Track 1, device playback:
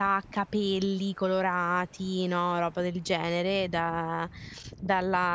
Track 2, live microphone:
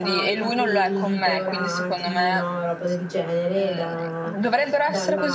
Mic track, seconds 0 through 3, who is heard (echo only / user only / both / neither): both